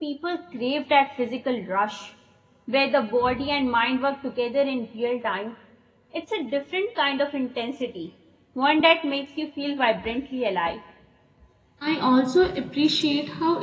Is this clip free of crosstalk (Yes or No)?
Yes